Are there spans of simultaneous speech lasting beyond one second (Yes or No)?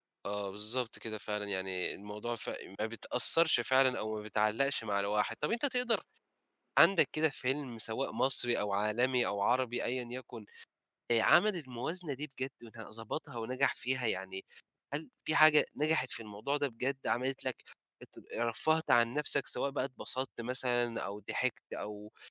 No